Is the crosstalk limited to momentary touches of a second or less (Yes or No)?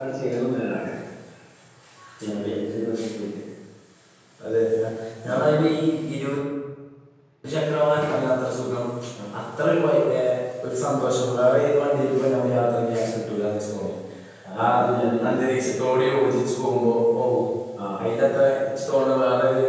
Yes